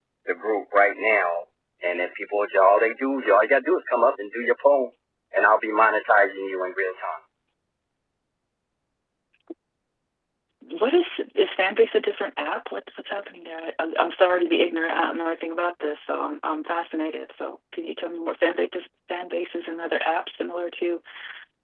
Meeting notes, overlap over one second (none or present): none